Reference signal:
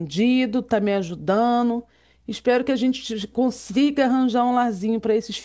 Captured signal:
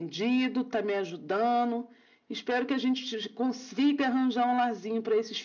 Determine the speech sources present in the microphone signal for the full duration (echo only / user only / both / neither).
echo only